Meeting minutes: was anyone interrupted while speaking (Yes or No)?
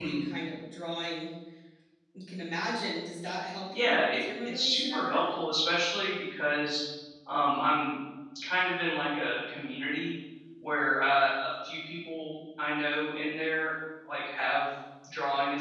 Yes